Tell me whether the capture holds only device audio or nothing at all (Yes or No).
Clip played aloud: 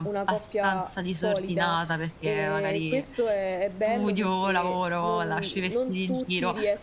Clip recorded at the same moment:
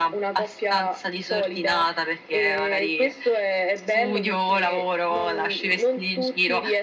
Yes